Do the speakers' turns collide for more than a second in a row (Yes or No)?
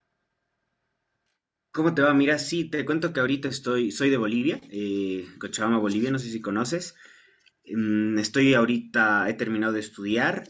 No